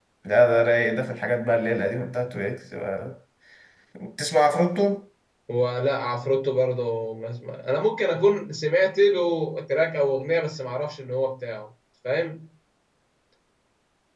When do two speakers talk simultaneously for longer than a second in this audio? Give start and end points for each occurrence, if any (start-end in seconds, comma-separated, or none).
none